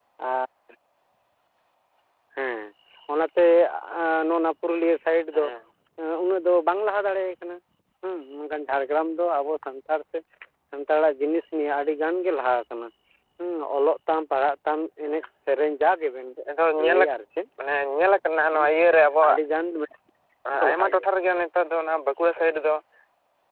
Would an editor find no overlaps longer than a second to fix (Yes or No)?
Yes